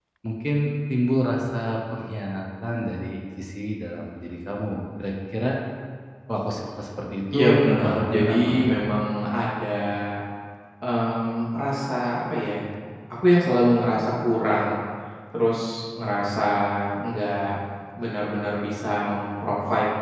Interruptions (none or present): present